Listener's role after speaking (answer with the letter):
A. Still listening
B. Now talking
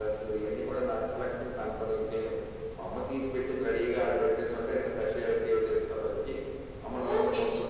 B